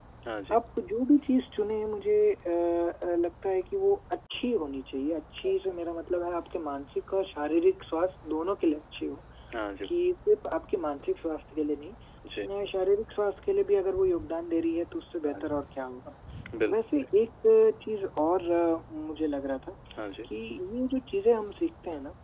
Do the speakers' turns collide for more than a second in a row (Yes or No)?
No